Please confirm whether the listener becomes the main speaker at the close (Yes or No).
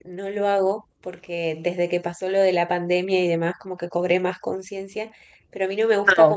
No